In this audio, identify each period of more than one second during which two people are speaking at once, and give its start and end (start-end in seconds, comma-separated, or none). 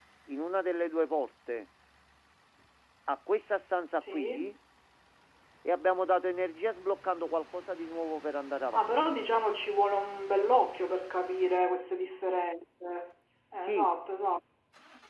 none